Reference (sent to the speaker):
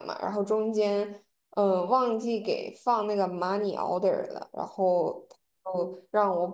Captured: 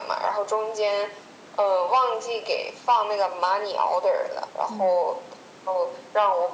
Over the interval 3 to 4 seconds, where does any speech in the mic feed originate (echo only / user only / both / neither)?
echo only